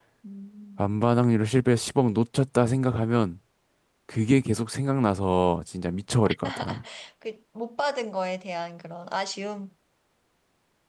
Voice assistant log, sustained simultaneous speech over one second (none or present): none